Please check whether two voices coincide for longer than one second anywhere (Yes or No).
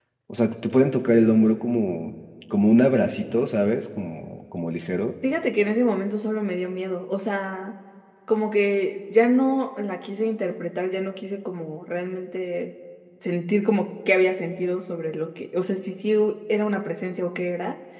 No